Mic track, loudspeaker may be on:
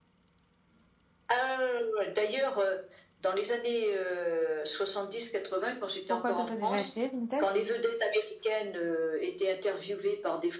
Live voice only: Pourquoi toi, t'as déjà essayé Vinted?

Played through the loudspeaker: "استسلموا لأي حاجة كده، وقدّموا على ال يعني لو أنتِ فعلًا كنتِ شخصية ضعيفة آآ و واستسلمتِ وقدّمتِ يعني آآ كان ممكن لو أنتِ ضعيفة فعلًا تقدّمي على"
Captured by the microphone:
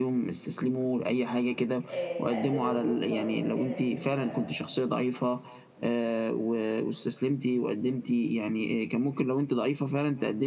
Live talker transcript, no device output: آآ تقدّم وتوصل للمكانة دي، ف

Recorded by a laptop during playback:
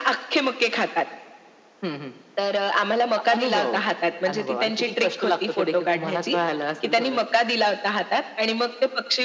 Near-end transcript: none

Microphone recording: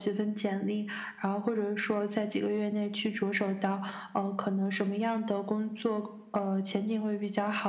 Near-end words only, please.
none

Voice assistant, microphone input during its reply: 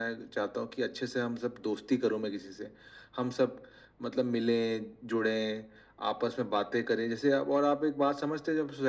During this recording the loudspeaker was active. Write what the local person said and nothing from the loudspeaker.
none

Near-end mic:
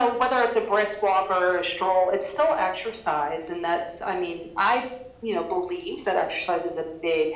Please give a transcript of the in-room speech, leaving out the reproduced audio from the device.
none

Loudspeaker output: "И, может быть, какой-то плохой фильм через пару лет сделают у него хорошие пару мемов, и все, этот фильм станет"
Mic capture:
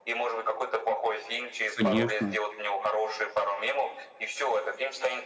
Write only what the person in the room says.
конечно,

